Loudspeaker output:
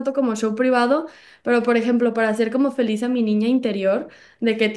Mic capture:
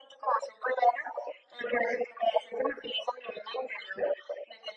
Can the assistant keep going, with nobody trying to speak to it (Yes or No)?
Yes